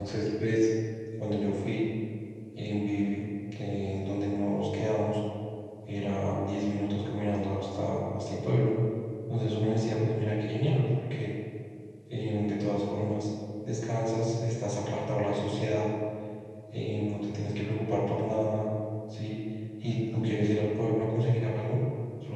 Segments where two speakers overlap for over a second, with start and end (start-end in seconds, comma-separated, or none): none